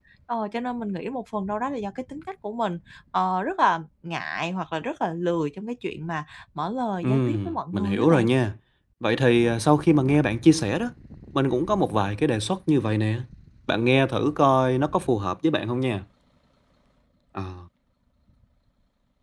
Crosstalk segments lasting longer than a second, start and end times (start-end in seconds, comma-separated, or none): 7.0-8.3